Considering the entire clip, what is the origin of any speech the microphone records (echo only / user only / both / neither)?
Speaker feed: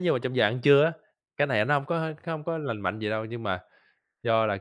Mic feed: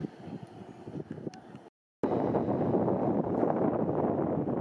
neither